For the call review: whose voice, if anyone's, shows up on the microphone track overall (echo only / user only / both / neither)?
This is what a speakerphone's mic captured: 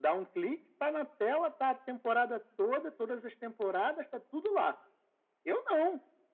echo only